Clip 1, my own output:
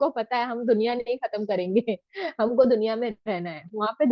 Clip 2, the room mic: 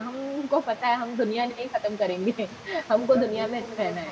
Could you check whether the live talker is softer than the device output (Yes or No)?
Yes